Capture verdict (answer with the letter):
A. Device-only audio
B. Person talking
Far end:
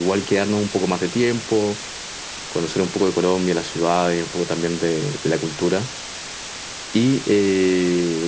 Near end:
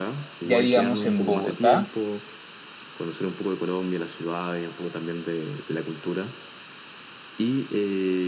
B